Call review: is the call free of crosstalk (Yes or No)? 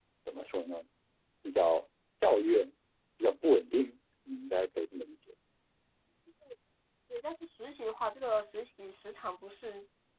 Yes